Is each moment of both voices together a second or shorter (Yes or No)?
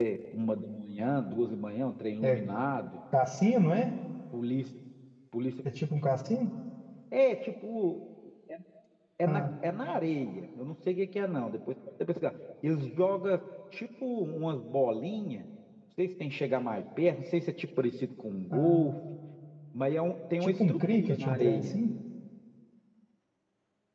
No